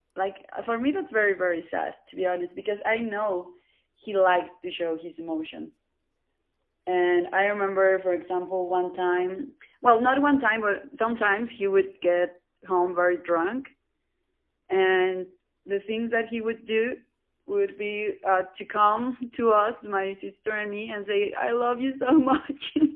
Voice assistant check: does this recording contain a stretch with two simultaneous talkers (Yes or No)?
No